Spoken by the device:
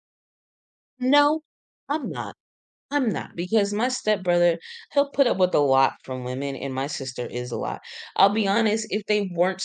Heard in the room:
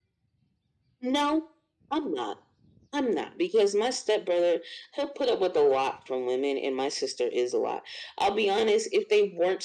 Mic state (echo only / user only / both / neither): echo only